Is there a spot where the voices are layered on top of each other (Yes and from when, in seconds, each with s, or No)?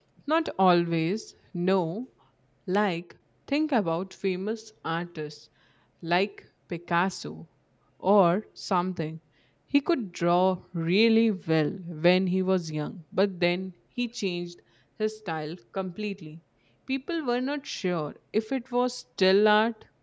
No